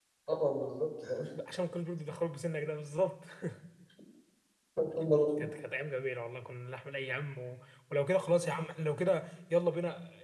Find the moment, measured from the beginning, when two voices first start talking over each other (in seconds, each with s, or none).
none